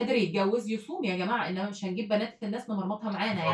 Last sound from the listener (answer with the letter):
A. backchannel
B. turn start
B